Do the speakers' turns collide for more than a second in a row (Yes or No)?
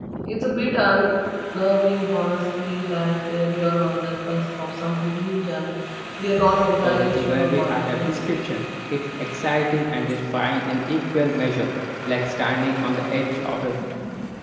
Yes